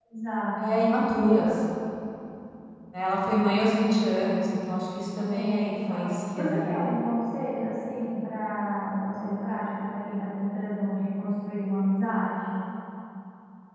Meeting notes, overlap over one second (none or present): present